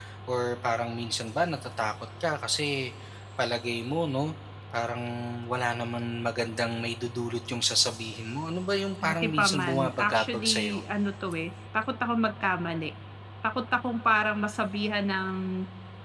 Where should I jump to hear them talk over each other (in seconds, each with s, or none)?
9.0 s